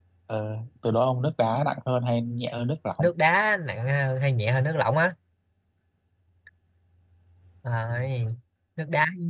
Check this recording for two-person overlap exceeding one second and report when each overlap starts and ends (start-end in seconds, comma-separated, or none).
none